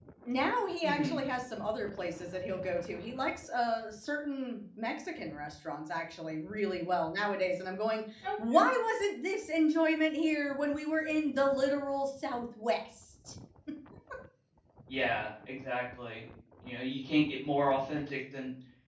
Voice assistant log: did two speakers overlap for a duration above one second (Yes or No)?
No